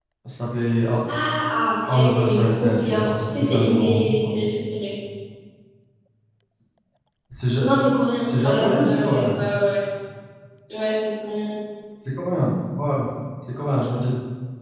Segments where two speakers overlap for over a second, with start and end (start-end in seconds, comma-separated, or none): 1.9-4.6, 8.2-9.4